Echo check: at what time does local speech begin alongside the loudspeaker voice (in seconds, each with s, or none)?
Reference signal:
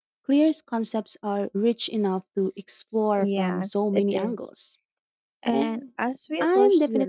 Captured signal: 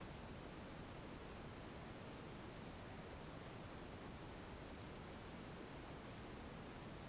none